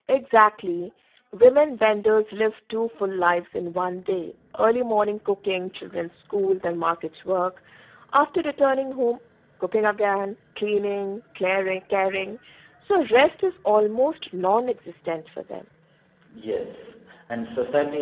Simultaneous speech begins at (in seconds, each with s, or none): none